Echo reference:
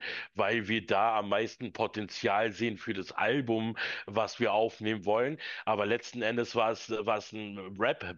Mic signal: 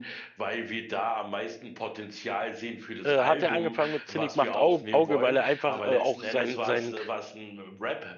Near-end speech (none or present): present